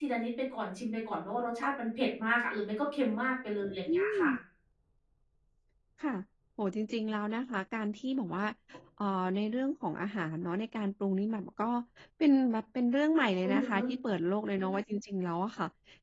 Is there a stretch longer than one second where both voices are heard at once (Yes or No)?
No